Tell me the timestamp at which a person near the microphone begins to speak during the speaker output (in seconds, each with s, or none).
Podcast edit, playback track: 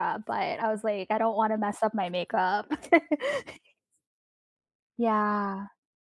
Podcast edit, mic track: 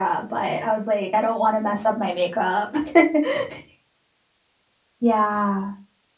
none